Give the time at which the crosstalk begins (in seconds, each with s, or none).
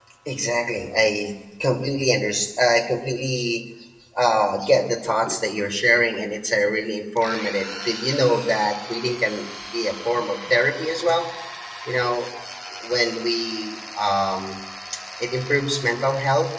none